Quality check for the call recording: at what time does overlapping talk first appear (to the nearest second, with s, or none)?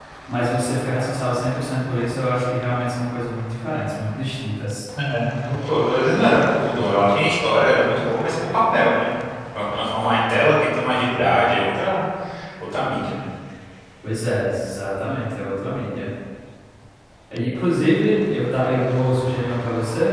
none